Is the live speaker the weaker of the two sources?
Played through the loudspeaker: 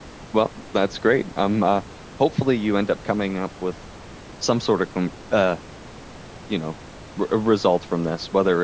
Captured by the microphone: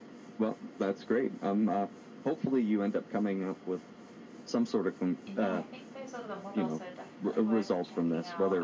Yes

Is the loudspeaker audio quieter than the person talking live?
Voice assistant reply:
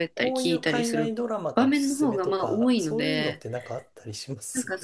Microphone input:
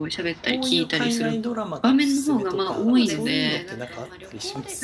No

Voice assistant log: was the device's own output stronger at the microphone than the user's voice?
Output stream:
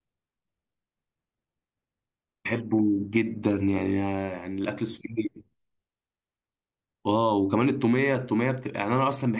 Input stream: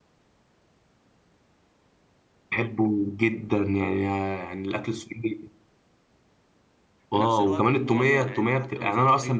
Yes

